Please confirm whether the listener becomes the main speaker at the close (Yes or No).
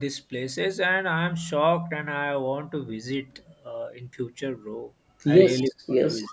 Yes